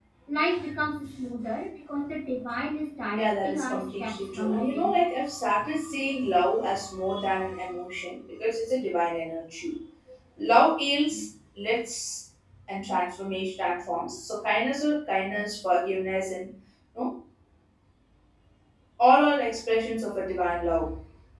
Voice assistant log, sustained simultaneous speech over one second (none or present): present